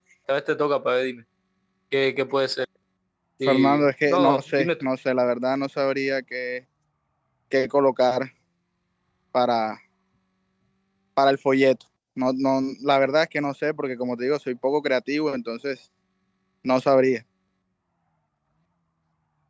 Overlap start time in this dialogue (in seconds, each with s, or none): 3.4 s